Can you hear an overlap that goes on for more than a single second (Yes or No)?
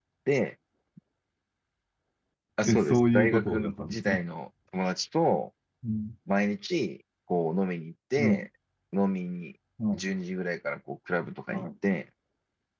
Yes